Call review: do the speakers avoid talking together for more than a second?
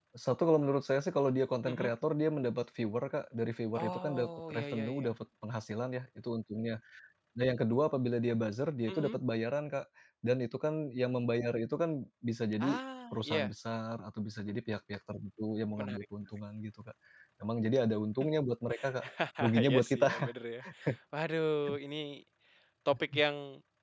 No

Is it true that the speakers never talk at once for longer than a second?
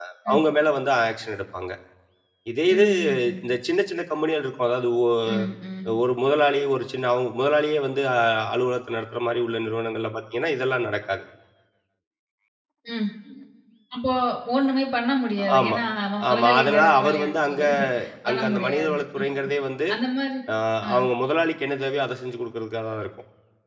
No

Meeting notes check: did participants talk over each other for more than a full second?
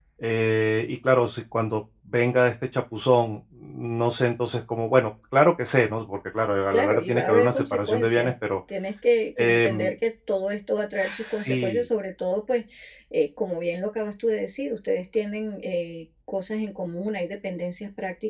Yes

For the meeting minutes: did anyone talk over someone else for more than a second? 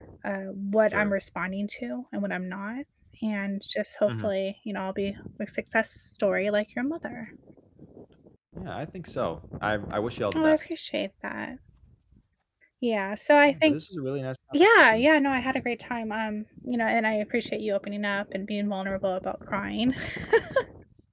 No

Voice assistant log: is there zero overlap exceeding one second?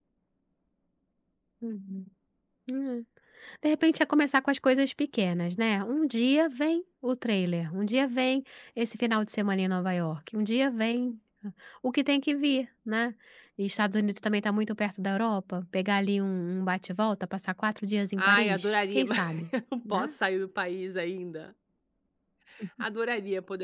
No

